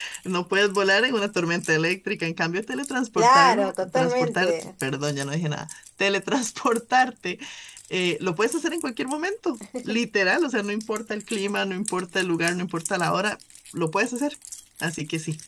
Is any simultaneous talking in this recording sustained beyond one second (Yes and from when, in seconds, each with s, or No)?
Yes, from 3.2 s